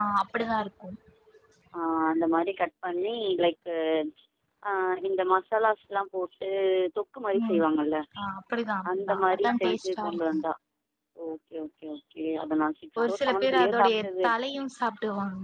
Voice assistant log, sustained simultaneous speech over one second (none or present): present